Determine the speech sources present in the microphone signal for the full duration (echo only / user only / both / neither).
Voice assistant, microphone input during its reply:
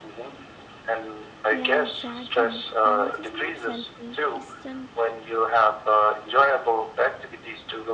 both